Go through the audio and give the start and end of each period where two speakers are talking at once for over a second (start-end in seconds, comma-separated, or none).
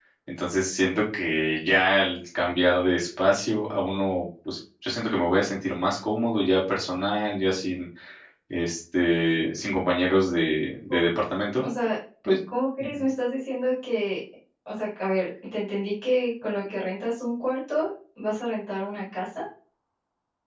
none